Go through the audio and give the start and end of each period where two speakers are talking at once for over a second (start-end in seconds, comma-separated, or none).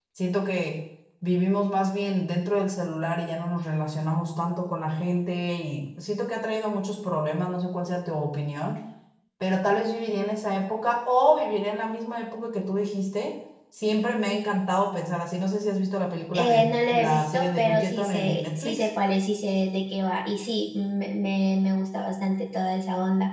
16.3-18.9